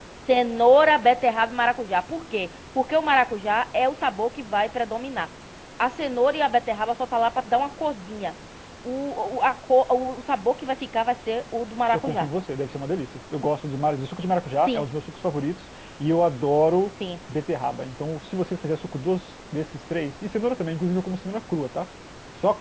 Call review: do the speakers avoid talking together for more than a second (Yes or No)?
Yes